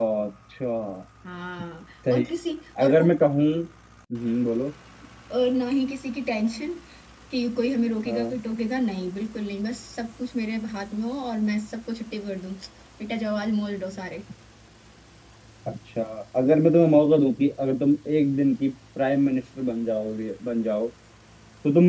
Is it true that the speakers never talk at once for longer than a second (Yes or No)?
Yes